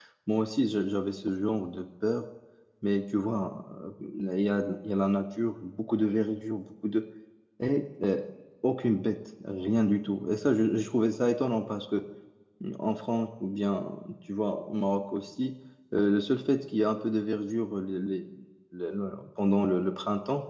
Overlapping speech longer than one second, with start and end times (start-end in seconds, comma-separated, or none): none